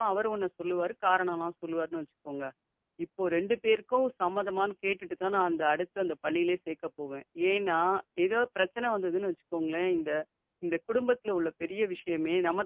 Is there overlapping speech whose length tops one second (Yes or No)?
No